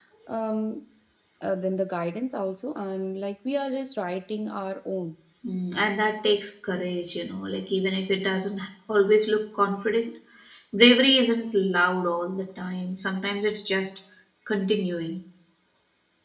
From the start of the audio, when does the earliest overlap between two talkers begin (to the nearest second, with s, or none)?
none